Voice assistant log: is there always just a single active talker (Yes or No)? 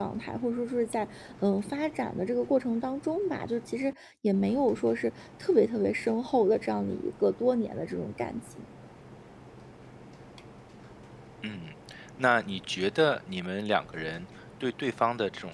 Yes